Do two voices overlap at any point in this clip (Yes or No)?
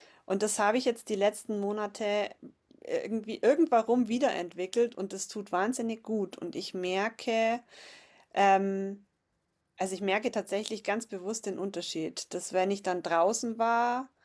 No